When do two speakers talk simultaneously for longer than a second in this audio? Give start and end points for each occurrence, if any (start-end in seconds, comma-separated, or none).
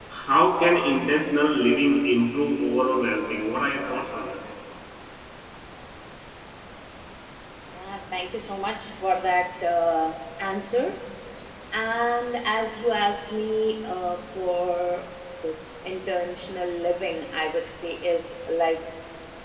none